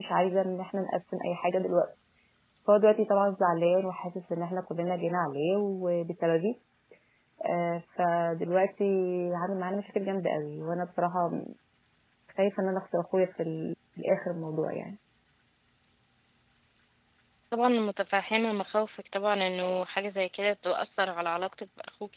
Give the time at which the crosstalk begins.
none

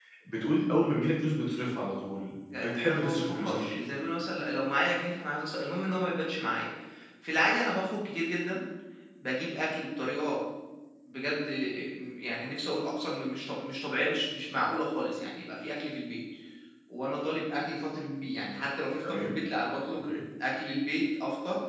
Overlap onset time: 2.6 s

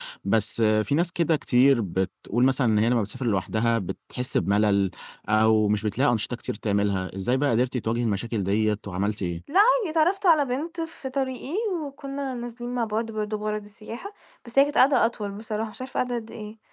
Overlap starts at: none

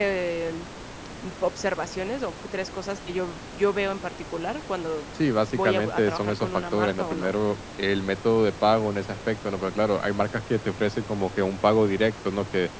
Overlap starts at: 5.5 s

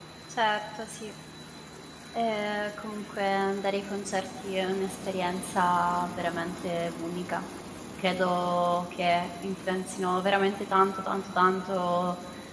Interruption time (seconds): none

